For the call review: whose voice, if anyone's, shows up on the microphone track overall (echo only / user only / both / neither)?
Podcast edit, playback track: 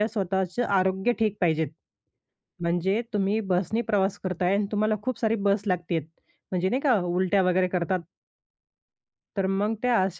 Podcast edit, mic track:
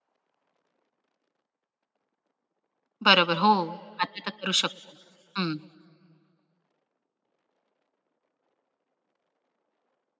user only